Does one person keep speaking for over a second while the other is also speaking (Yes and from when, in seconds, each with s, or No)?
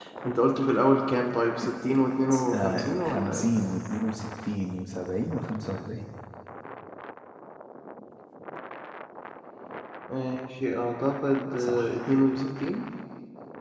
Yes, from 2.3 s